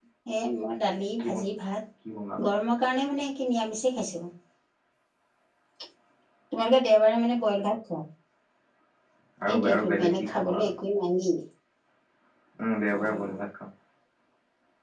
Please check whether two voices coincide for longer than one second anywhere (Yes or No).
Yes